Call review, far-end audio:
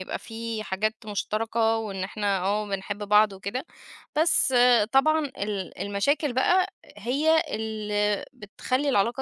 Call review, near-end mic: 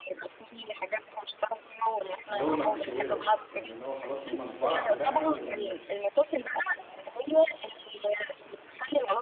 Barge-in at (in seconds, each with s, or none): 2.3 s